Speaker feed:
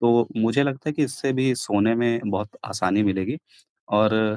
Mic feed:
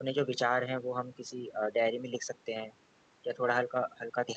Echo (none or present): none